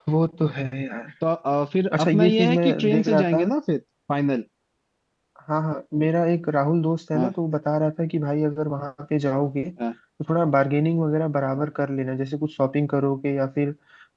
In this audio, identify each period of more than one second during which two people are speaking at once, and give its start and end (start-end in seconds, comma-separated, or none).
2.0-3.4